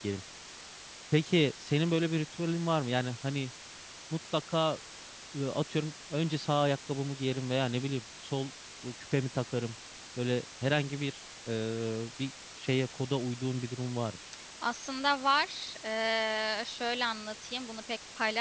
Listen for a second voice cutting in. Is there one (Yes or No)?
No